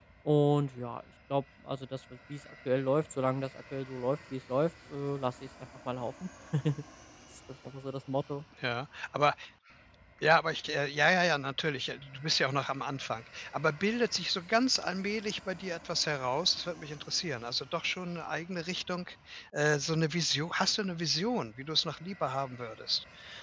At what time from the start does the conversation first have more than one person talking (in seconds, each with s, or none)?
none